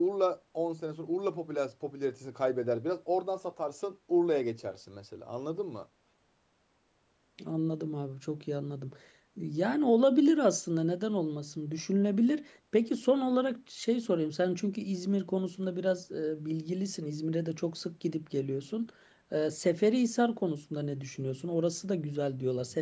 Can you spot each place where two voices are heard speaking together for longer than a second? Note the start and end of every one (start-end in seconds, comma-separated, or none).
none